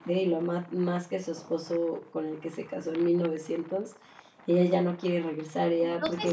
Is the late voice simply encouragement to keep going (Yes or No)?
No